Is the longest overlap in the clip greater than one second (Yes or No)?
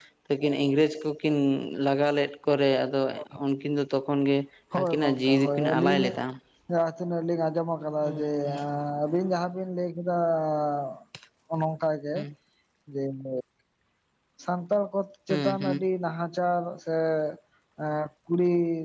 Yes